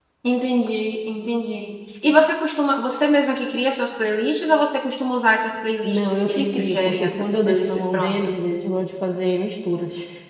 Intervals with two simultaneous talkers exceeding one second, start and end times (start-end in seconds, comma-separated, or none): 5.8-8.4